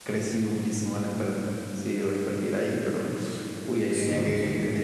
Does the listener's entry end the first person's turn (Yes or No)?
No